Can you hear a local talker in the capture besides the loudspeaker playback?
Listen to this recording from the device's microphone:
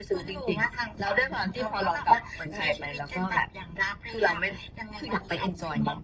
No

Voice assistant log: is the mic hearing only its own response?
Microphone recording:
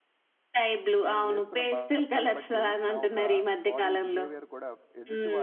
No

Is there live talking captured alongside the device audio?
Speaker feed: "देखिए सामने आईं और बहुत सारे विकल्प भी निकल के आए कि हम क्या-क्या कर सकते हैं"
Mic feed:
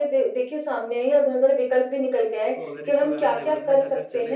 Yes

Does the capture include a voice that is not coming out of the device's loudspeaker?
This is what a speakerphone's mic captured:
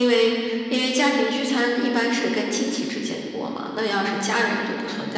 No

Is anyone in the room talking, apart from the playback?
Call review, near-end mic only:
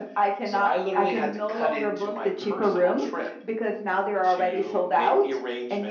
No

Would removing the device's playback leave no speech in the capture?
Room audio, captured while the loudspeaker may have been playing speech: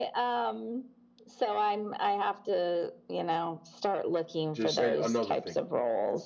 No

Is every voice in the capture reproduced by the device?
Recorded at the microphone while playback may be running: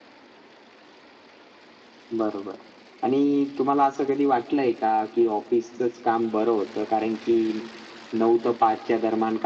Yes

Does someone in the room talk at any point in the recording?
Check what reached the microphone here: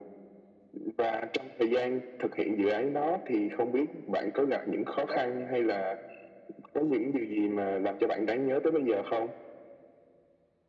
Yes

